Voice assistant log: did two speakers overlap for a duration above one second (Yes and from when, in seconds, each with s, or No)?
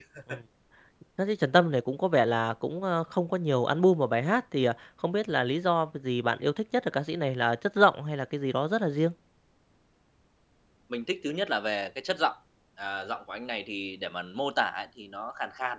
No